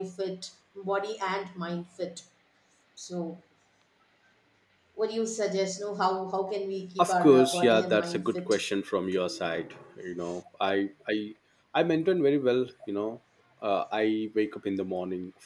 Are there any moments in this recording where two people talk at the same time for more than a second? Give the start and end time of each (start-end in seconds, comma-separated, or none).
7.0-8.6